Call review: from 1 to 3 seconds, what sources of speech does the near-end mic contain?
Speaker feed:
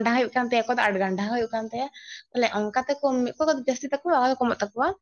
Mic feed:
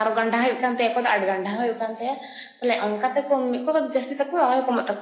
echo only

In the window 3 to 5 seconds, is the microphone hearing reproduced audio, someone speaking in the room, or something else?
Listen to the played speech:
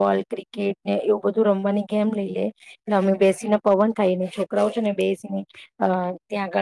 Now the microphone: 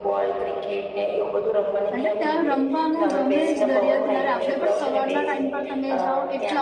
both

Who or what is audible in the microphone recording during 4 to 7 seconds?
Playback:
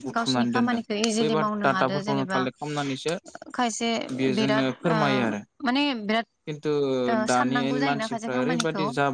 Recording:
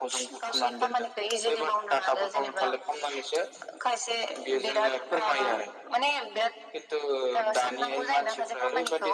echo only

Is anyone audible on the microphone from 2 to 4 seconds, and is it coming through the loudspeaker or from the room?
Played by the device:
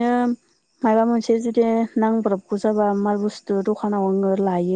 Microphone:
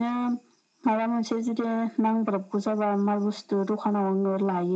echo only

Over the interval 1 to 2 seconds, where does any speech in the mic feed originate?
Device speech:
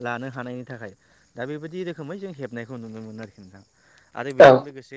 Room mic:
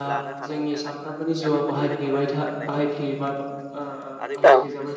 both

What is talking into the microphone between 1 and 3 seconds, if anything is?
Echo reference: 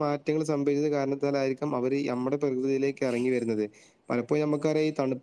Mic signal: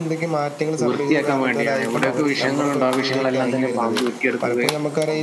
both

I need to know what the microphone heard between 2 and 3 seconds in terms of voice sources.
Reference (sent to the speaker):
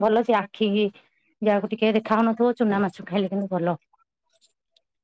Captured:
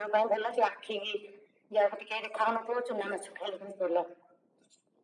echo only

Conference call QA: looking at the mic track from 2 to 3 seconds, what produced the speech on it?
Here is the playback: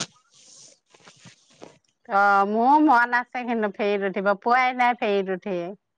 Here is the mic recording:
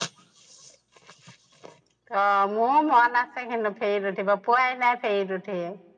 echo only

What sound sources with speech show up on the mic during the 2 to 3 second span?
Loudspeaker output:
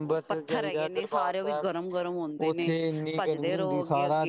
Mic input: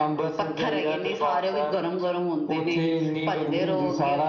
echo only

